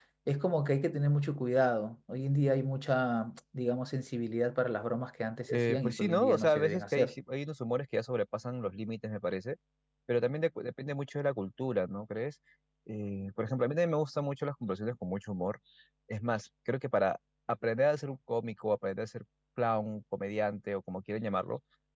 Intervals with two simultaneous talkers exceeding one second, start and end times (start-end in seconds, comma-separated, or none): 5.5-7.1